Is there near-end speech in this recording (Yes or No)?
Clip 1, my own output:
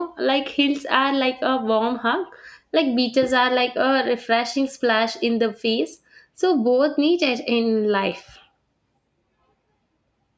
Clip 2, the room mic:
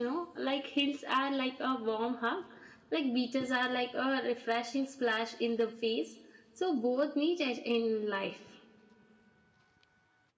No